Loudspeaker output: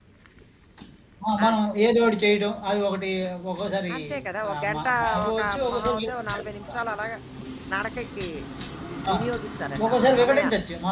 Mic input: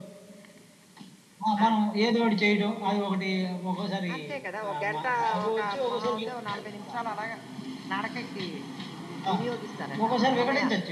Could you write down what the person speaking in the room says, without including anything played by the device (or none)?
none